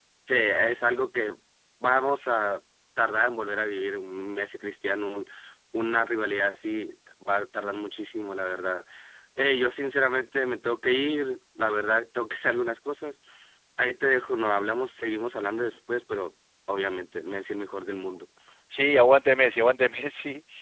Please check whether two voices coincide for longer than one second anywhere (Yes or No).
No